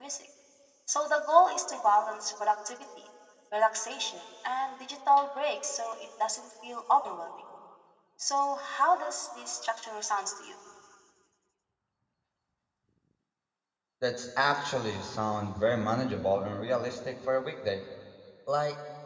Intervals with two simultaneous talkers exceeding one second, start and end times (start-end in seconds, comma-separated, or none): none